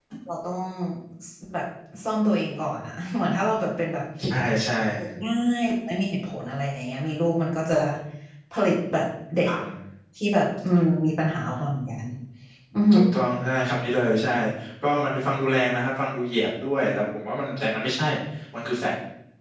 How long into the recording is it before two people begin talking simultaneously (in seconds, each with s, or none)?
none